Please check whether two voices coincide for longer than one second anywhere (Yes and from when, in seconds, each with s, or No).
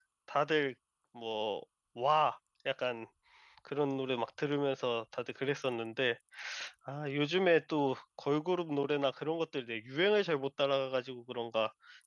No